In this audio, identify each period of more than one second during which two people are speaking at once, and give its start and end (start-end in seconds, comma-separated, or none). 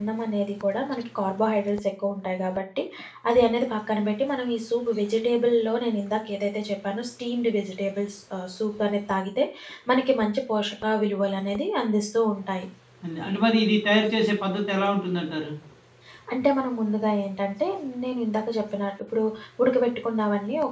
none